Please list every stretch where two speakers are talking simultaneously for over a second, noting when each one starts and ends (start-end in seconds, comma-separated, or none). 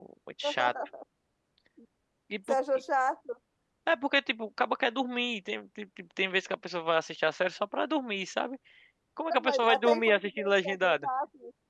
9.3-11.1